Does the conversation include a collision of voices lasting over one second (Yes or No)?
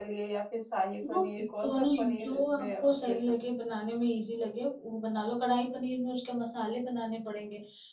Yes